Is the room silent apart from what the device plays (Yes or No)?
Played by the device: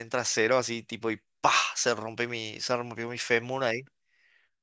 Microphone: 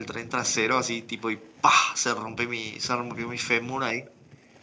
Yes